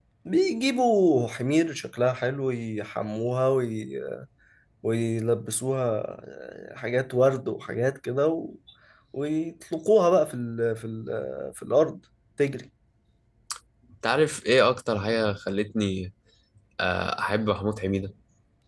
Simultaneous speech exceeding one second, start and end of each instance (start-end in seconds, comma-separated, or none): none